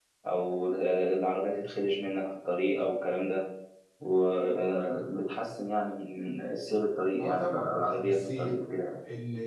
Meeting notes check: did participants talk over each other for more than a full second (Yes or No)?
Yes